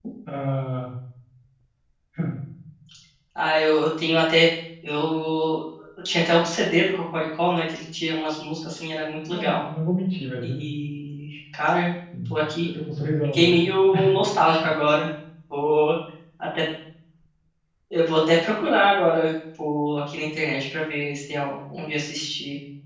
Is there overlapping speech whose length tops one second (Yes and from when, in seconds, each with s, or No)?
No